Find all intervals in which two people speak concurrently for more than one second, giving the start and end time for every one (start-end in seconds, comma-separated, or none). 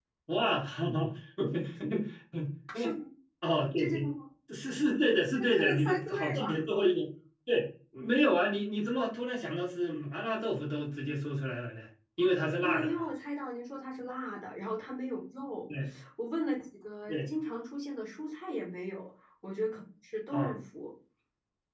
5.3-6.6